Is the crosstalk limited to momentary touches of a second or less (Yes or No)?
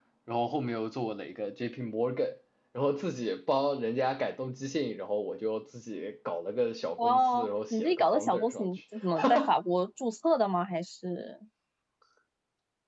No